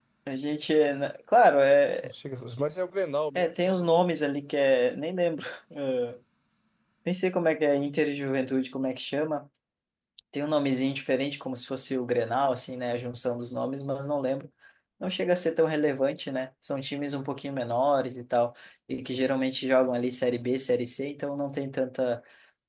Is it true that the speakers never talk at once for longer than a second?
Yes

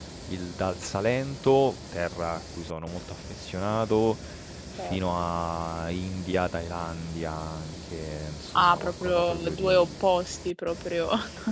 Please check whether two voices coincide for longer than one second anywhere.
Yes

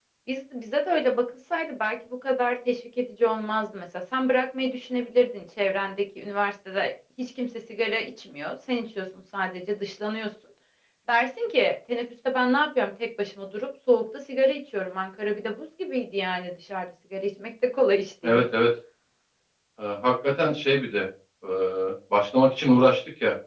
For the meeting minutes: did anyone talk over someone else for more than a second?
No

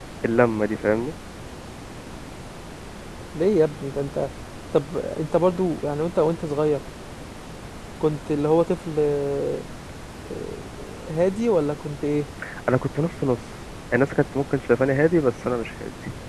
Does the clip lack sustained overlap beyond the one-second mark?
Yes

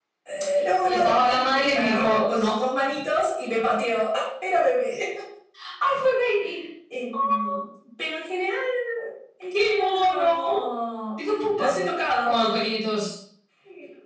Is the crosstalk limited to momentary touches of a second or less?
No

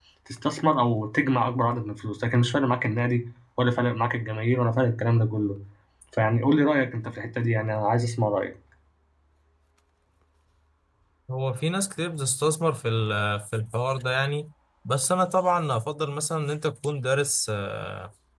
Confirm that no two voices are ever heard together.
Yes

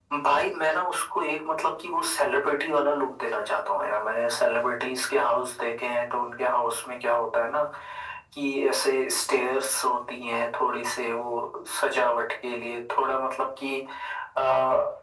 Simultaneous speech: No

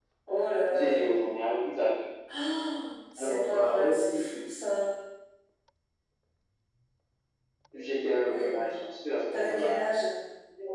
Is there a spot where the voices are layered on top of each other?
Yes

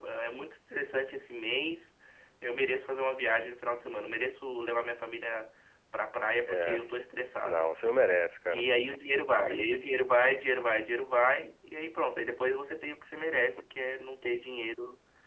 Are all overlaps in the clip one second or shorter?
Yes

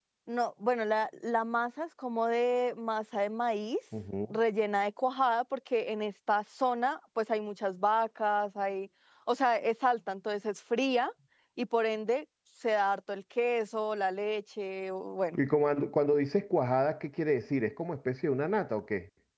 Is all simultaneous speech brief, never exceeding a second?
Yes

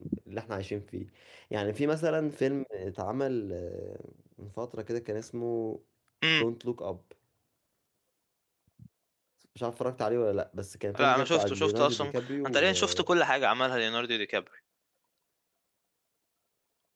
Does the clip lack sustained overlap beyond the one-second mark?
No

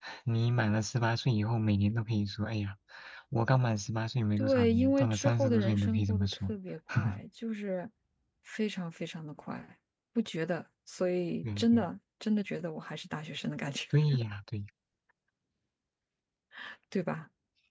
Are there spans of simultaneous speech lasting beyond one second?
Yes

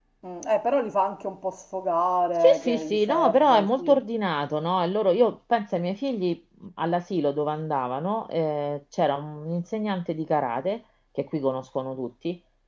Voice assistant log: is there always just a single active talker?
No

